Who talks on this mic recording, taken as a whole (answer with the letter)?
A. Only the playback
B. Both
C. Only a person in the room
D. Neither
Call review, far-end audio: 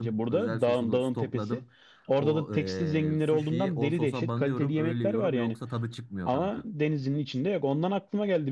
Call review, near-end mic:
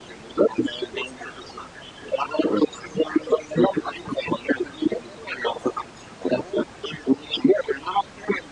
A